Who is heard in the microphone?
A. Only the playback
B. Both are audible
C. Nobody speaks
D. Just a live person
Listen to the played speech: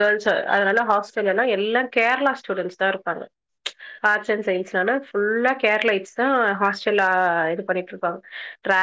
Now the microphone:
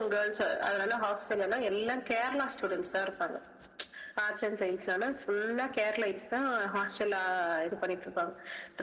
A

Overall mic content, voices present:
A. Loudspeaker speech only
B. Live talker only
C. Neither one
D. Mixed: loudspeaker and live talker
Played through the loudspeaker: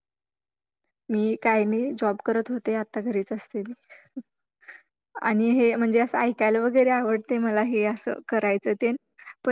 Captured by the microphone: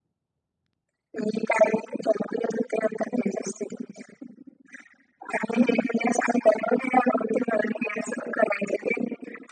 A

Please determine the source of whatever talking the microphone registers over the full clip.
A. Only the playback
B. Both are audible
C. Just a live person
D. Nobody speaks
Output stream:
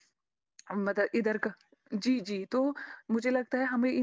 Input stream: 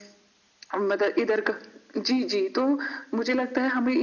A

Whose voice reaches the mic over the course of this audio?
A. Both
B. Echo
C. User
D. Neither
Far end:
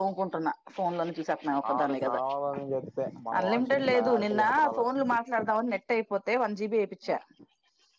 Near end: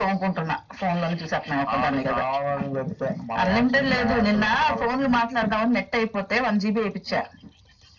B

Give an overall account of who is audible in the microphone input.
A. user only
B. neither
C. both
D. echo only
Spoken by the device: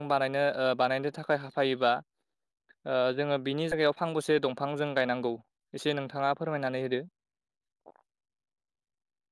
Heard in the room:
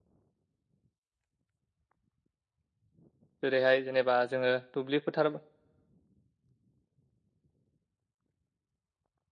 A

